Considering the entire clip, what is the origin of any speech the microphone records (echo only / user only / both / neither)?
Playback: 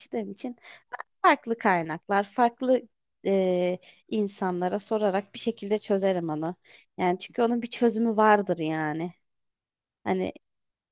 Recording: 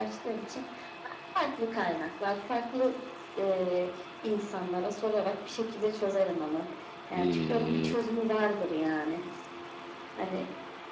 both